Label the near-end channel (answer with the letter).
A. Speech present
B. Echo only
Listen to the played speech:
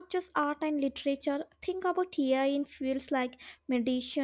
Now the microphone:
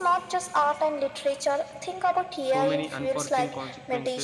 A